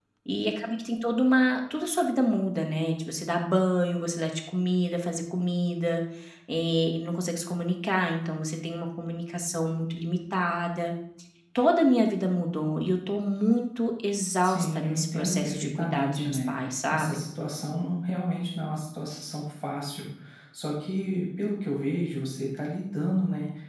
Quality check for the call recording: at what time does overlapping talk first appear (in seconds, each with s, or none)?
14.4 s